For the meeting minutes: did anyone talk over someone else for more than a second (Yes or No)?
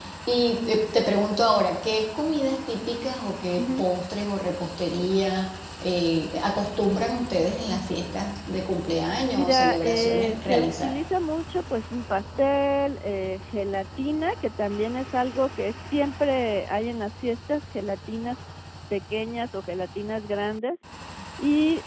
Yes